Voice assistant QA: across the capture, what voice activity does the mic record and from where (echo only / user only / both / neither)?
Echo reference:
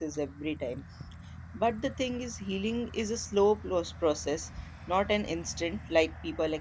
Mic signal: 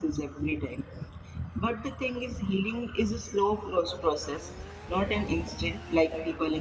echo only